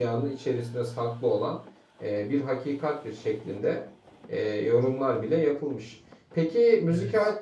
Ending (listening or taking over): listening